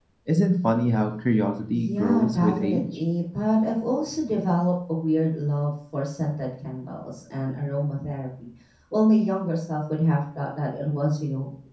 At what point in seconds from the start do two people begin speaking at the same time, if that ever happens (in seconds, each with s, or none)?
1.7 s